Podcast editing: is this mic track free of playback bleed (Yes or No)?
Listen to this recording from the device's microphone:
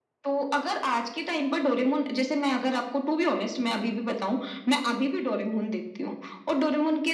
No